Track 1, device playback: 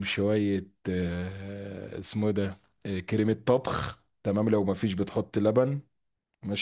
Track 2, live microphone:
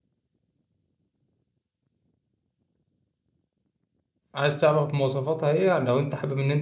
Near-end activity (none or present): present